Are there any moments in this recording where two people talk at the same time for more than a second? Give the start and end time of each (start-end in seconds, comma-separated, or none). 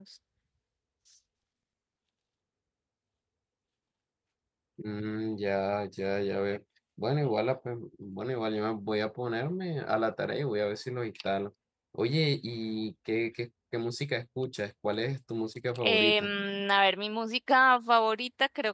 none